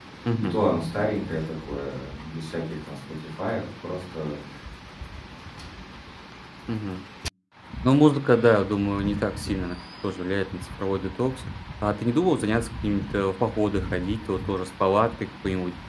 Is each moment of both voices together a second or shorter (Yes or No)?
Yes